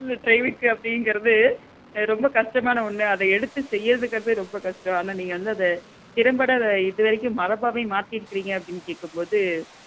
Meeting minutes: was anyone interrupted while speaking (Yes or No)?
No